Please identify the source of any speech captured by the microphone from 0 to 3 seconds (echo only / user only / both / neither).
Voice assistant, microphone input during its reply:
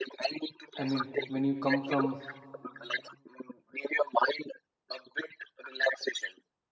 both